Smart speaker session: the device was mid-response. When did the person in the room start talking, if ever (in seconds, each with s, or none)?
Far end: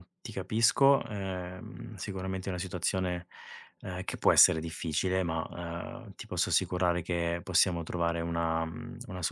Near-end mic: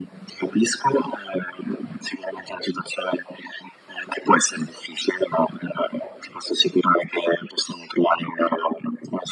none